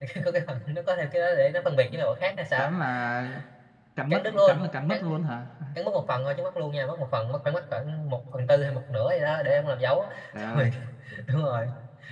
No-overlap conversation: No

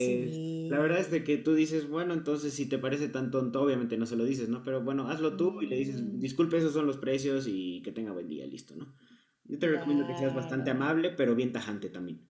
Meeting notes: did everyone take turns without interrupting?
No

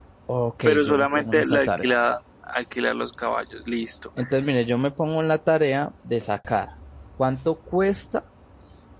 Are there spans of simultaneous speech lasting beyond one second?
Yes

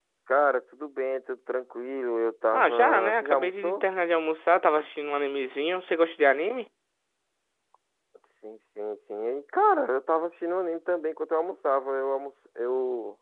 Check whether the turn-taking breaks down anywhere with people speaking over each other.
Yes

